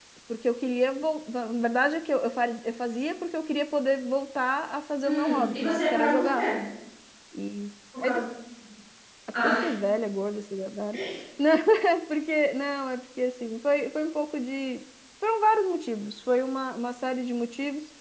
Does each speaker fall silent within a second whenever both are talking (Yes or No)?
No